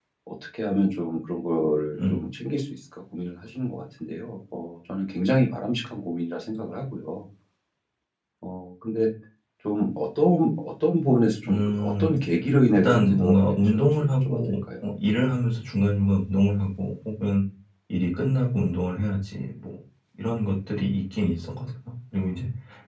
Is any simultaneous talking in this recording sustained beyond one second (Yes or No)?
Yes